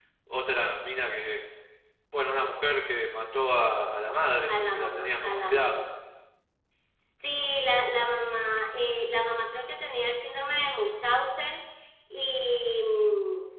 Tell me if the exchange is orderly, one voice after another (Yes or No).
No